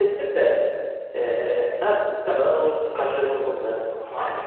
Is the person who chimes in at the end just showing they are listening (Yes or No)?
No